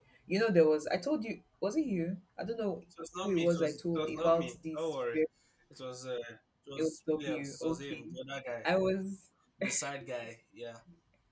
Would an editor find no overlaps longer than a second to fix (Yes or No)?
No